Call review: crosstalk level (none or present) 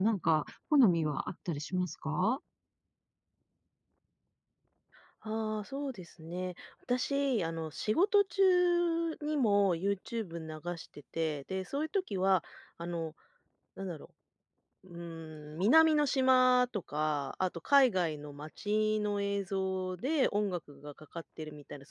none